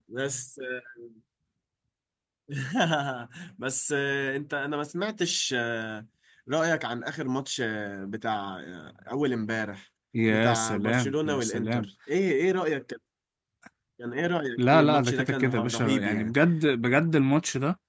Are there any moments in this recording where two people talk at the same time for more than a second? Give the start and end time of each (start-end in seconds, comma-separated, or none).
10.3-11.9, 14.6-16.3